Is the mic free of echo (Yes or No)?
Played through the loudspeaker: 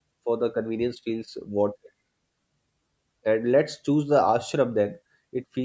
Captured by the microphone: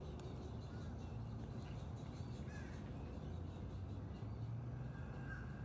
Yes